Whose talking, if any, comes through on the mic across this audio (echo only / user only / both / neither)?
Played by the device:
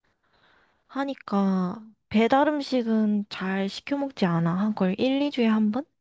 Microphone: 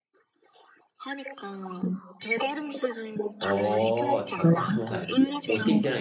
both